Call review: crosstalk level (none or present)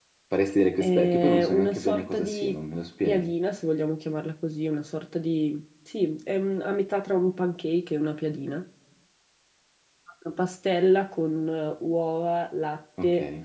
present